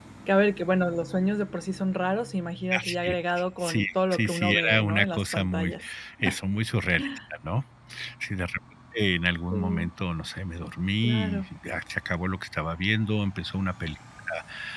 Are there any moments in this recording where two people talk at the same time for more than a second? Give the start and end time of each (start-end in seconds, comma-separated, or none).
3.6-5.7